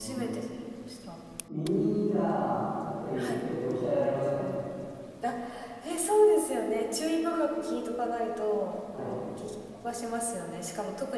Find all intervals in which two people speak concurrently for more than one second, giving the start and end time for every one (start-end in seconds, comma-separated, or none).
none